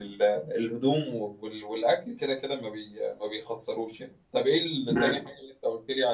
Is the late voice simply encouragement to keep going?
Yes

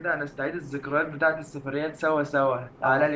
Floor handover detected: No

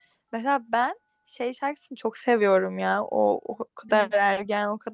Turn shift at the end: No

